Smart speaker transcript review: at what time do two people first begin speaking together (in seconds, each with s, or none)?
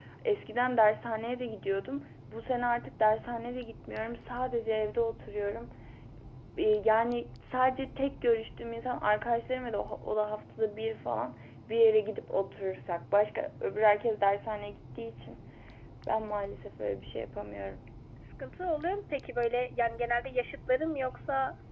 none